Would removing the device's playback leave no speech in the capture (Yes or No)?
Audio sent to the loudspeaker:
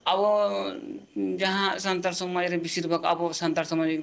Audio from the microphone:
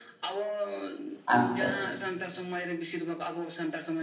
No